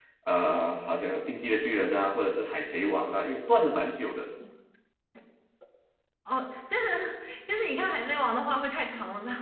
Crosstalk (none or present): none